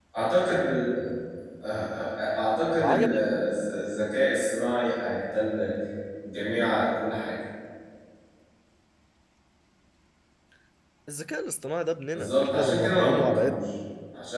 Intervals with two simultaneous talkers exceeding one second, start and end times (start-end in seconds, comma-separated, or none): 12.1-13.7